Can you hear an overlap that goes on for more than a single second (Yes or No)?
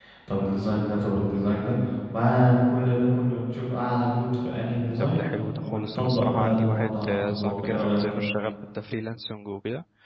Yes